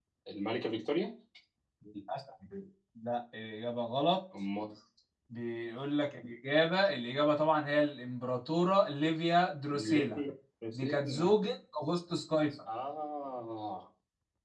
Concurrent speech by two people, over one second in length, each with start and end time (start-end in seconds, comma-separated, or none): none